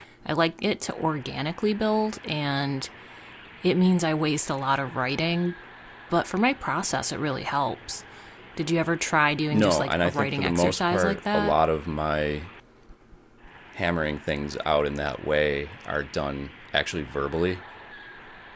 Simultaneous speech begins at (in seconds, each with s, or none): 9.5 s